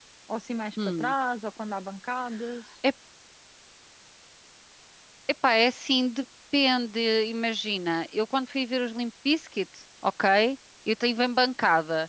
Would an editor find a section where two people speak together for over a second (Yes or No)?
No